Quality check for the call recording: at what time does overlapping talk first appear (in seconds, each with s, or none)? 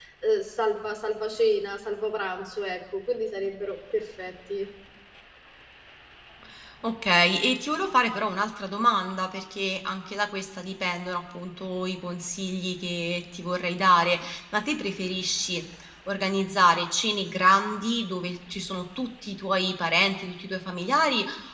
none